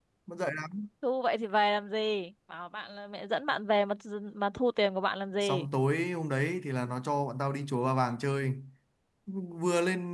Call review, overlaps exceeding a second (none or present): none